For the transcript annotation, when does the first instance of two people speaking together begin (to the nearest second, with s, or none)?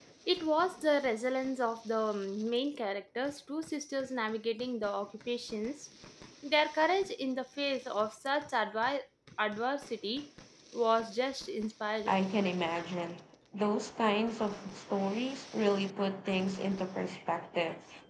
none